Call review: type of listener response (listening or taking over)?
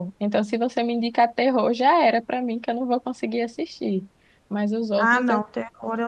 taking over